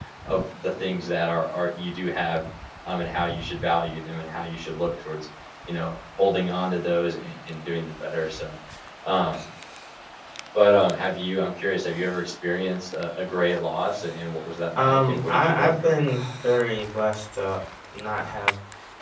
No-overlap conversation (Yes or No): No